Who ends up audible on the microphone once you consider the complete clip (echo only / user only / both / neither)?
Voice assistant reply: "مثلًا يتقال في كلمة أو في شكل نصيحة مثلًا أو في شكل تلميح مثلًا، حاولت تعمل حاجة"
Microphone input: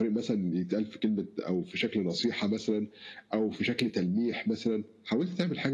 echo only